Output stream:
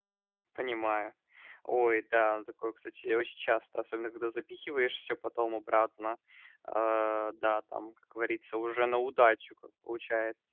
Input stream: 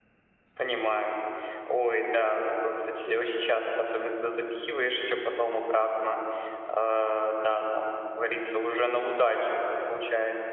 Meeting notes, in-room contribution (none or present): none